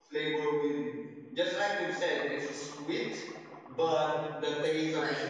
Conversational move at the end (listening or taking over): listening